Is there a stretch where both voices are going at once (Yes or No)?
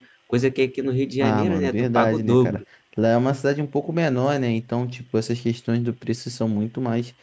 Yes